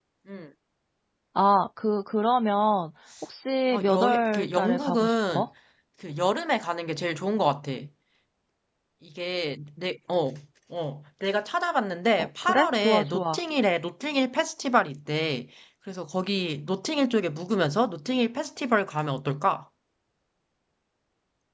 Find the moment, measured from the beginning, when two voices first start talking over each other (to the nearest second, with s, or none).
4 s